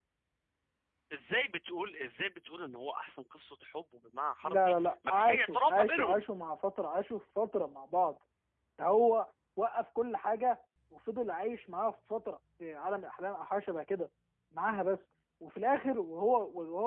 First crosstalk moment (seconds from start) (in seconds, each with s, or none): 4.4 s